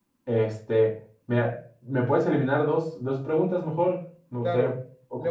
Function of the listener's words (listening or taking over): taking over